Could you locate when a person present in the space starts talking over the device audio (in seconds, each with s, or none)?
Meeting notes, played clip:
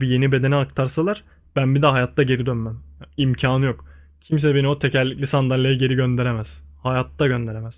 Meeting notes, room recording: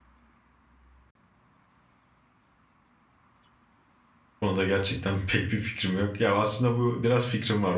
4.4 s